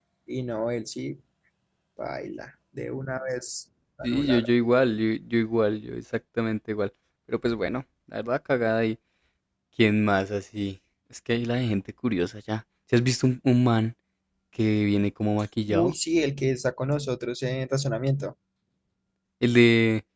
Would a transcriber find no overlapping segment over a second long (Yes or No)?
Yes